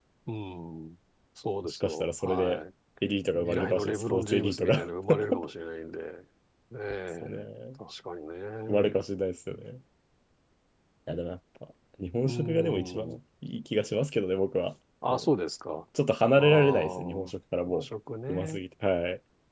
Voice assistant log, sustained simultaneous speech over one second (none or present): present